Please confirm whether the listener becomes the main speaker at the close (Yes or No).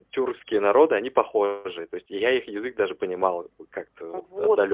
Yes